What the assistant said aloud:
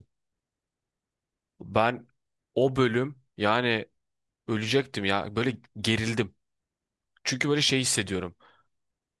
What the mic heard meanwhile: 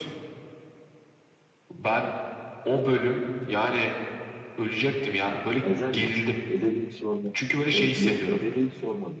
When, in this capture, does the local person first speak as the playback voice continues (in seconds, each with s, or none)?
5.6 s